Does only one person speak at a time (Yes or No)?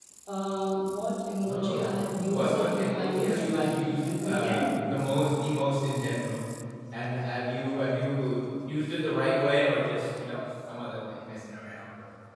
No